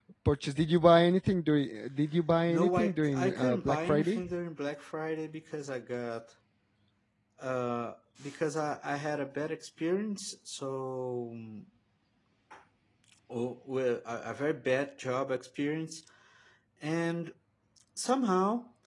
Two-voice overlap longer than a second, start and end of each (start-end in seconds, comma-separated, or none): 2.5-4.3